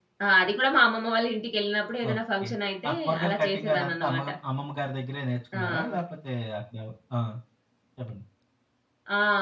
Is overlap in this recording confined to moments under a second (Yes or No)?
No